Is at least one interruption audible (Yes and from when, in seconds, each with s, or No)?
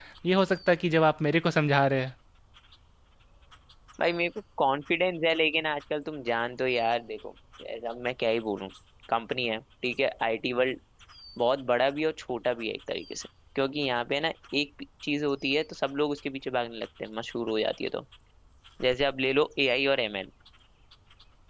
No